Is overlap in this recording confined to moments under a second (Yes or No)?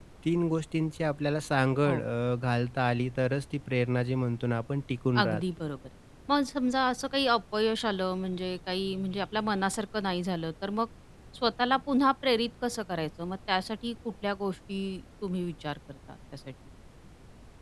Yes